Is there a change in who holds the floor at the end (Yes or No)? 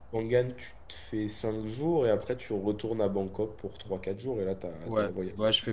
Yes